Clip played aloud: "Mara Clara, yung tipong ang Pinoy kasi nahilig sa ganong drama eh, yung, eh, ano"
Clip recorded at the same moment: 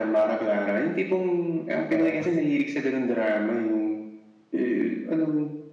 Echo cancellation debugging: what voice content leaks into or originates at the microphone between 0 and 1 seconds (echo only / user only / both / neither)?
echo only